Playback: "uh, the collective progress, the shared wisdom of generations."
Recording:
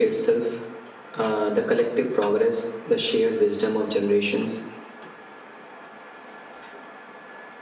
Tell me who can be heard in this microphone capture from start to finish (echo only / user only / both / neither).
echo only